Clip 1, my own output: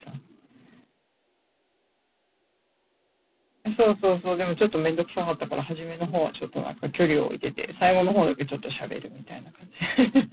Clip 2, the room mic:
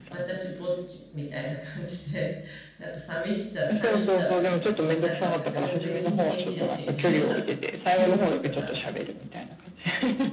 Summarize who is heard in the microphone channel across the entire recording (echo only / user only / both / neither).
both